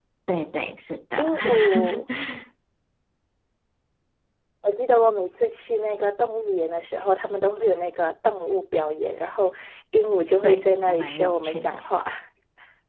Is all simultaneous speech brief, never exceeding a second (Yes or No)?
No